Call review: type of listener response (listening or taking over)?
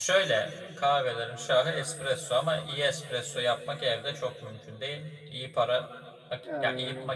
listening